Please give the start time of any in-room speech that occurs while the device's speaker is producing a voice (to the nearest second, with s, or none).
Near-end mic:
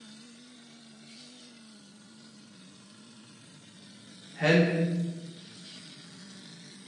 4 s